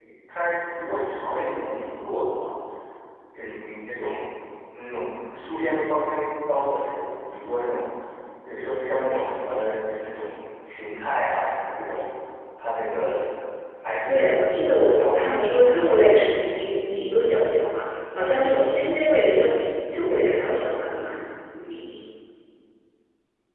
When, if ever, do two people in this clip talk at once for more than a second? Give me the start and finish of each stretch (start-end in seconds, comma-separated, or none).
14.1-16.6